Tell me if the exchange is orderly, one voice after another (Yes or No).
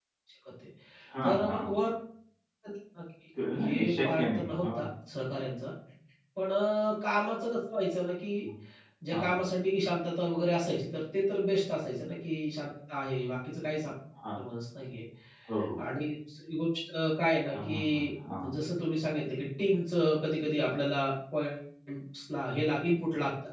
No